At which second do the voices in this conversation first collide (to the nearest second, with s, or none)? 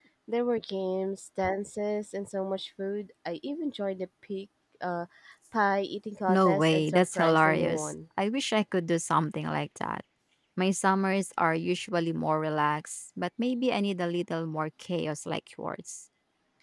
6 s